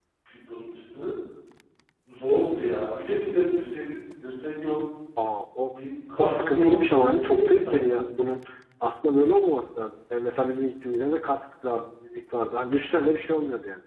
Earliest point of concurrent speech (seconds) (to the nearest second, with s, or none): 6 s